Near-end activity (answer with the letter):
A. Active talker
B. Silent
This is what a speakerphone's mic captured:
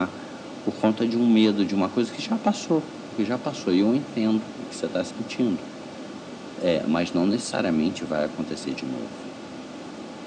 B